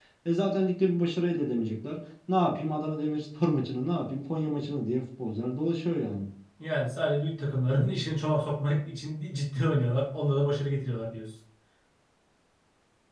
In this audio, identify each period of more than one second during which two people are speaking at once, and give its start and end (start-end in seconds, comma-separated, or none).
none